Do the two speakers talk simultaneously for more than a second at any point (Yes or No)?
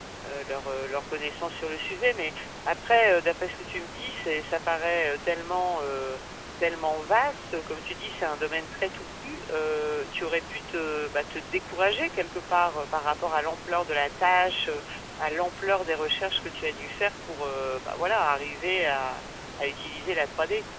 No